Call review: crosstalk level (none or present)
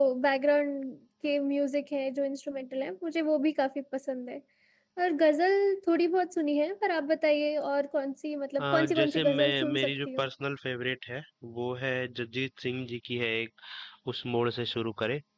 present